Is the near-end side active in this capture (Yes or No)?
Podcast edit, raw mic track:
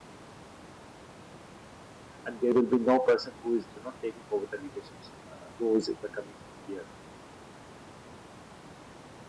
Yes